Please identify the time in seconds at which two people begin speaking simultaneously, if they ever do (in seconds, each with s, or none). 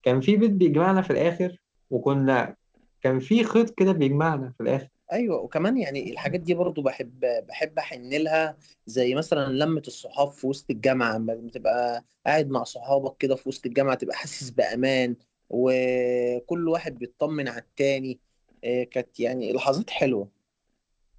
none